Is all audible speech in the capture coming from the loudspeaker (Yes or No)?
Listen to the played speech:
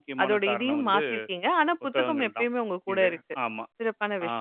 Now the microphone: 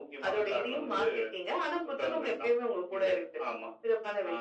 Yes